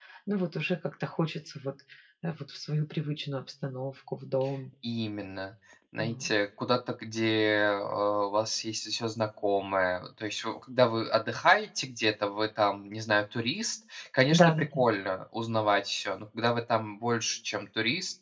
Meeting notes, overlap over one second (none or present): none